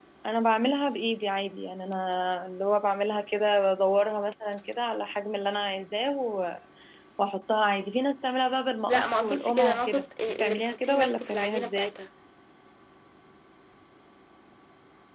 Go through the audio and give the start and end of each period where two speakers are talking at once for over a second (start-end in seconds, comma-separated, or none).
8.9-11.9